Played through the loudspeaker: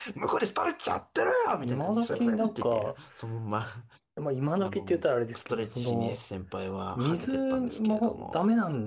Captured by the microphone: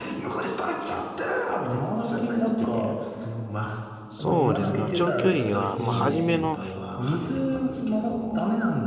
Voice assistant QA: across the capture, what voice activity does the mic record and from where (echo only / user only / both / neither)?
both